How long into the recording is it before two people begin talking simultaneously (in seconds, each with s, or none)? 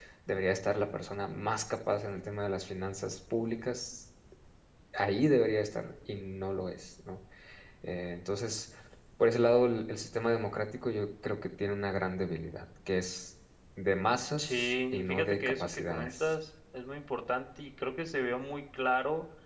14.4 s